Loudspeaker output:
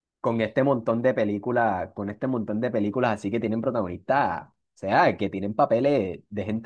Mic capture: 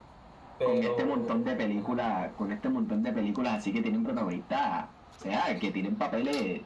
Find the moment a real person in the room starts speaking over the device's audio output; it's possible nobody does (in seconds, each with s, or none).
0.6 s